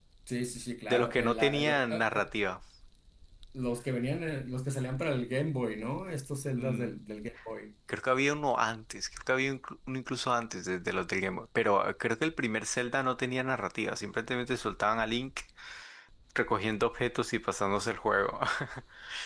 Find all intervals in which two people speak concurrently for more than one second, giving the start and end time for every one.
0.9-2.3

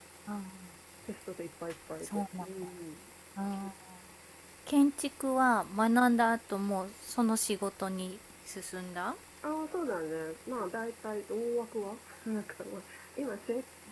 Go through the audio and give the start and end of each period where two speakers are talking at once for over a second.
none

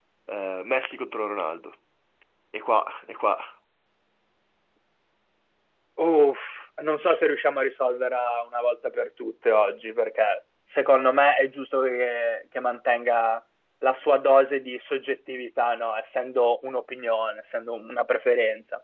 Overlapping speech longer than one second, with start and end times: none

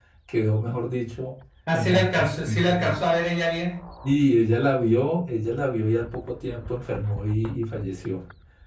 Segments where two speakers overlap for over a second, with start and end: 1.7-3.0

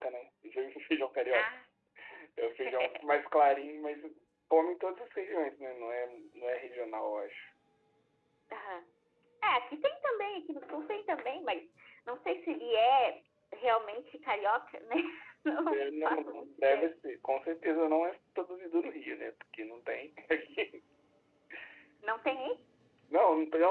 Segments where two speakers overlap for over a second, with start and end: 15.7-16.9

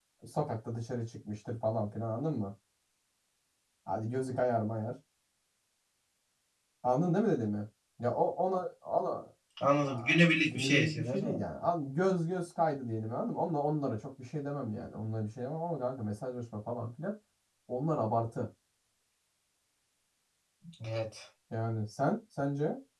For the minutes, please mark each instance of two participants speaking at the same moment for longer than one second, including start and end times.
9.9-11.4

